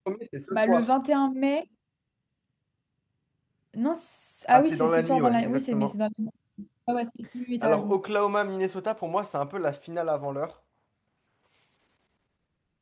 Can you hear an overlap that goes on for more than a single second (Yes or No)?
Yes